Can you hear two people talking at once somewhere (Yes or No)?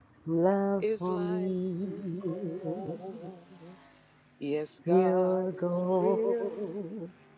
Yes